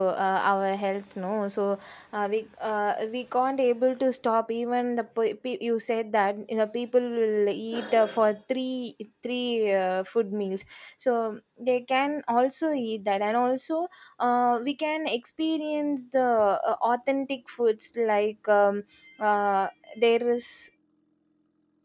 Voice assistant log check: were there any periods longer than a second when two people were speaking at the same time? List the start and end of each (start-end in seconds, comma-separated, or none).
none